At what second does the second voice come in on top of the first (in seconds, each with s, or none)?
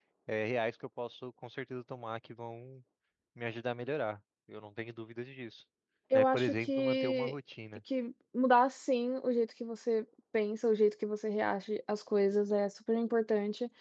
6.1 s